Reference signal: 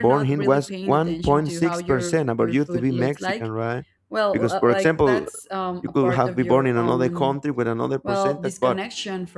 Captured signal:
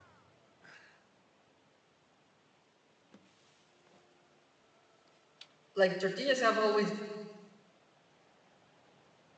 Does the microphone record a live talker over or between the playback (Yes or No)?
Yes